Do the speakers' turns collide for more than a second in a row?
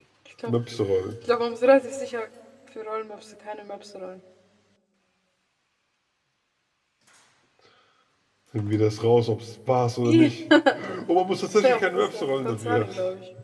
Yes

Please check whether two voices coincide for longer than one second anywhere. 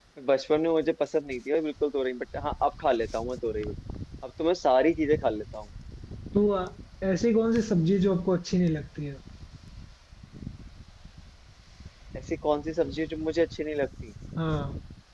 No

